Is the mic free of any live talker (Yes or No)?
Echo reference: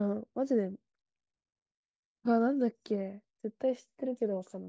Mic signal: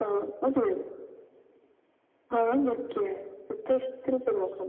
Yes